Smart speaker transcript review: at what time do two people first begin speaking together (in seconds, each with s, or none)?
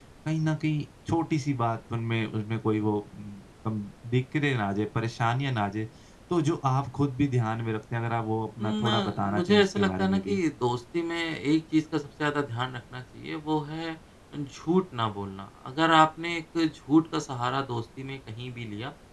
8.6 s